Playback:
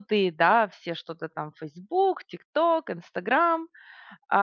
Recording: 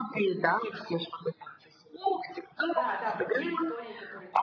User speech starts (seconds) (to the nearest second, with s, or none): 3 s